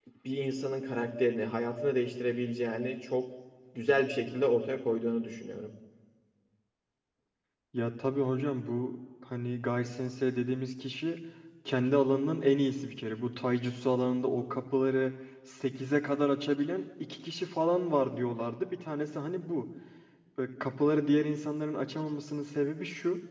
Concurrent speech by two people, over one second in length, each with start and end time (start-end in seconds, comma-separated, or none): none